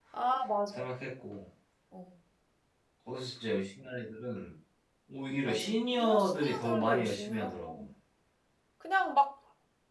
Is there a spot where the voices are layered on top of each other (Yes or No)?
Yes